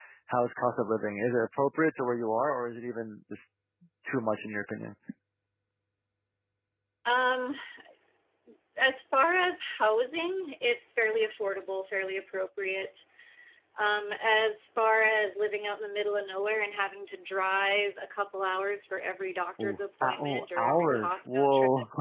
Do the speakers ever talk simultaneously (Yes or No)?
Yes